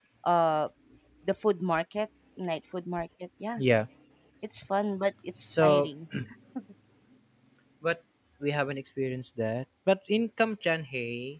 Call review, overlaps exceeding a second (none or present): none